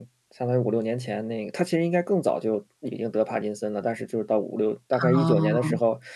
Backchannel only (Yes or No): Yes